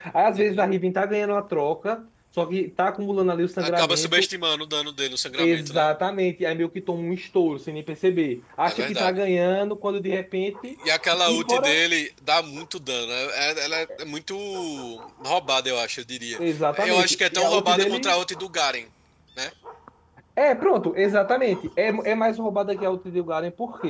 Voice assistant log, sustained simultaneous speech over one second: present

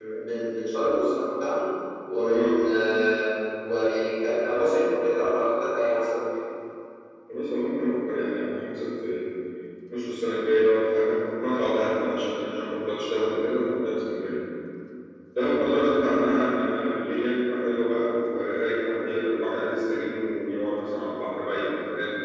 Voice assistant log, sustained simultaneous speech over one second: none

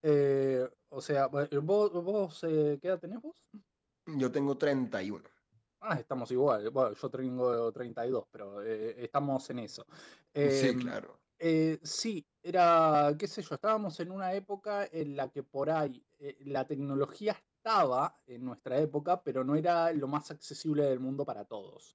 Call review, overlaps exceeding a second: none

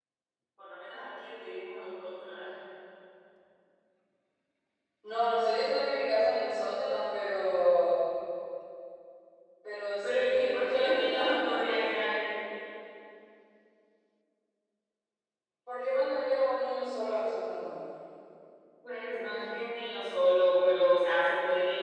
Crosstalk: present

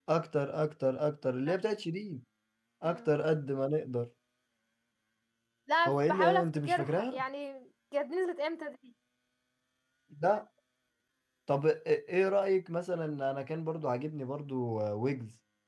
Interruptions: present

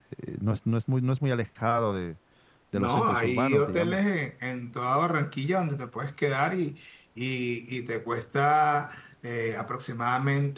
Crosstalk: present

